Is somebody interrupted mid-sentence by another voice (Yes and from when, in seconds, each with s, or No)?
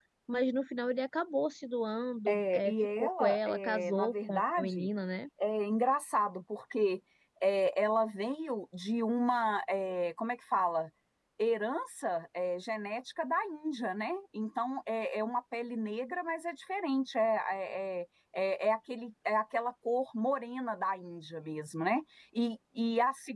Yes, from 2.3 s